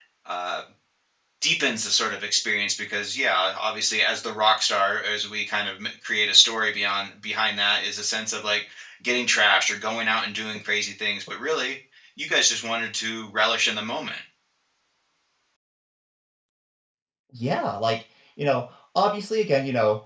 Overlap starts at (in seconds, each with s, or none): none